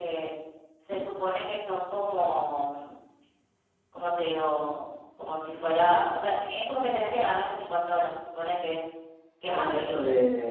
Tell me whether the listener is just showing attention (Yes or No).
No